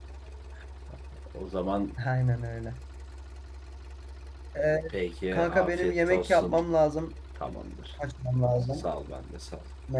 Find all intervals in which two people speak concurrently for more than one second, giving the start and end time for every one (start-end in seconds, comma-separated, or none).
5.3-6.5